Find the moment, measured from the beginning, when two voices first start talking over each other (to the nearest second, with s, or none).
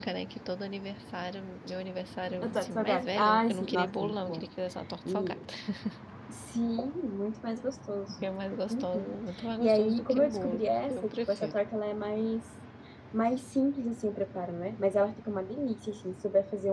2 s